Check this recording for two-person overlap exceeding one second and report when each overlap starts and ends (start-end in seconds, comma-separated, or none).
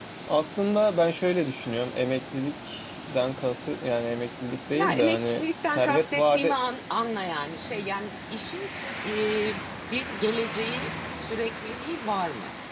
4.7-6.6